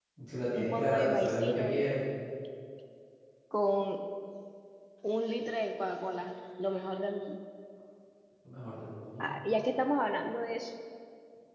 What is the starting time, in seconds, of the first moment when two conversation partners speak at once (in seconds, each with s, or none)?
0.6 s